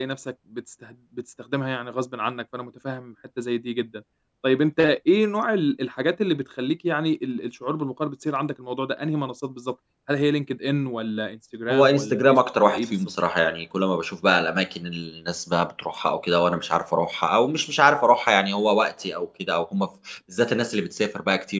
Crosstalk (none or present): present